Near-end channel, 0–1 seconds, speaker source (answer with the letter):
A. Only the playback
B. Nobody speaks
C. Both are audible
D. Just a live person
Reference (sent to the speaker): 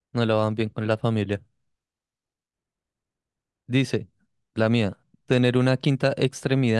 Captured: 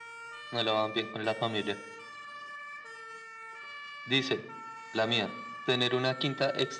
A